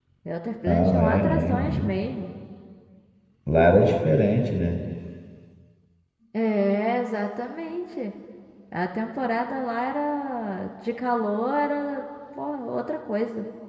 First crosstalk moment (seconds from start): 0.7 s

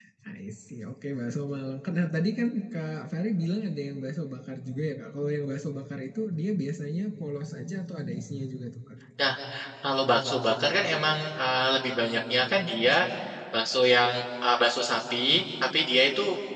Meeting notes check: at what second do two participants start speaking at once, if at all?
none

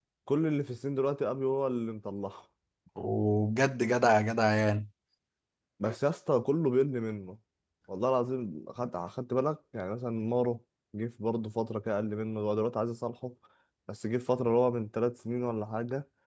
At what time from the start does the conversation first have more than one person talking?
none

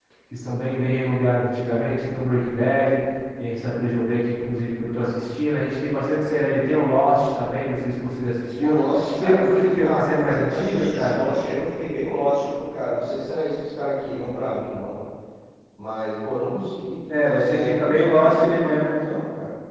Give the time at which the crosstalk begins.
8.6 s

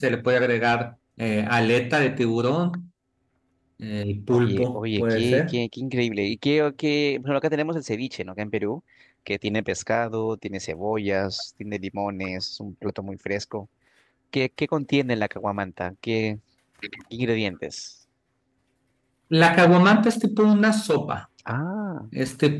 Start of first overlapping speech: 4.3 s

